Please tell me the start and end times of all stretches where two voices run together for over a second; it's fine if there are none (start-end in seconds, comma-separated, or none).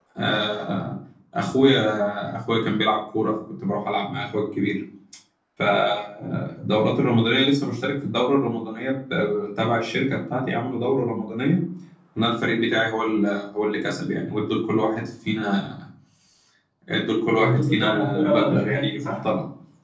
17.4-19.1